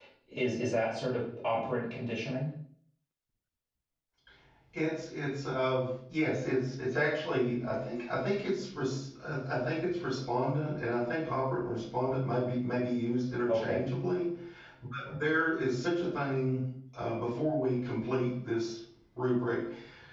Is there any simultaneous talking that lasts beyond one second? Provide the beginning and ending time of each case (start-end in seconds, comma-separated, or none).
none